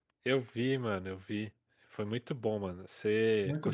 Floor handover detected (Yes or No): Yes